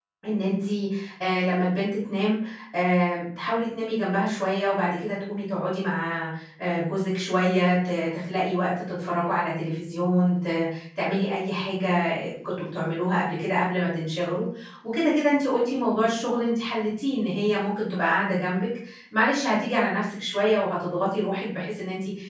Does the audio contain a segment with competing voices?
No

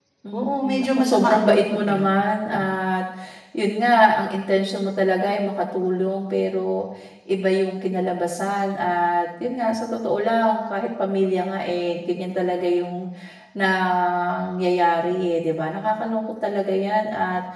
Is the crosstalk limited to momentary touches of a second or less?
No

